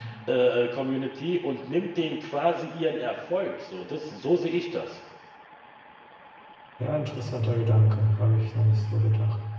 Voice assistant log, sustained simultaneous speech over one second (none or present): none